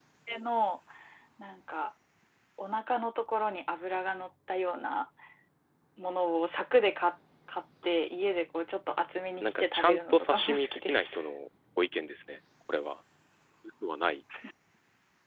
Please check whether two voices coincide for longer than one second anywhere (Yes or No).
Yes